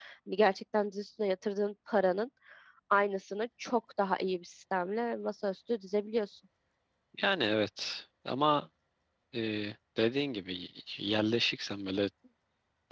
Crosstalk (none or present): none